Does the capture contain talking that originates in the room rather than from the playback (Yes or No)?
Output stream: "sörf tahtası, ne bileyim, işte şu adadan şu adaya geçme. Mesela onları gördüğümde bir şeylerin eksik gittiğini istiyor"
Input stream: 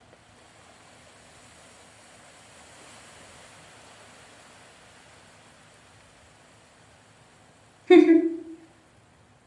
Yes